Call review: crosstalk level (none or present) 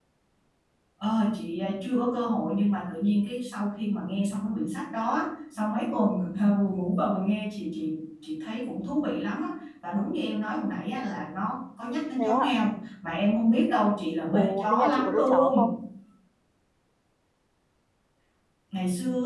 present